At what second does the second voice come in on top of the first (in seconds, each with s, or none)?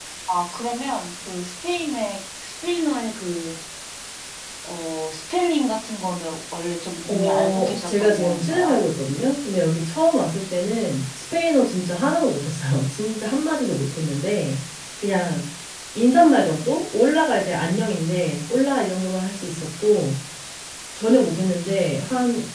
7.0 s